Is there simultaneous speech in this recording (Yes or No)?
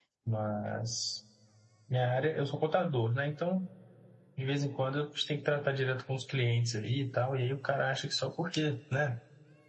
No